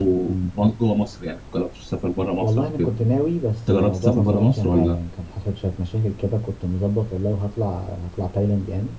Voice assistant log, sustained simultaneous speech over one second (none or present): present